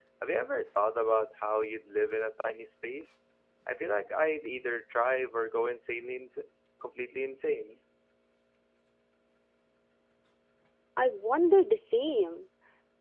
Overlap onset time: none

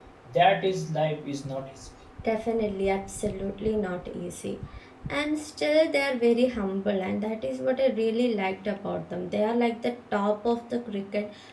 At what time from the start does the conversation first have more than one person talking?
none

